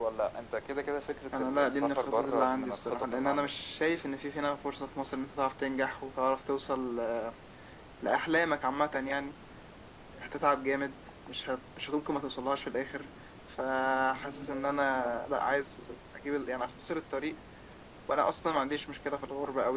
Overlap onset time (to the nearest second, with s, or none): 1 s